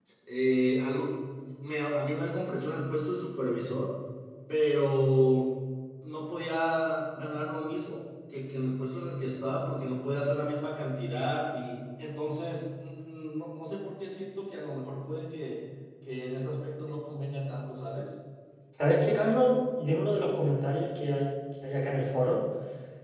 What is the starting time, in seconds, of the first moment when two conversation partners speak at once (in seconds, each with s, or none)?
none